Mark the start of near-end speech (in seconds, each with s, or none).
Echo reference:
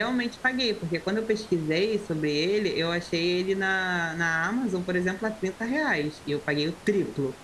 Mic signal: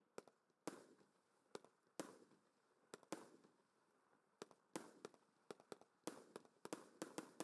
none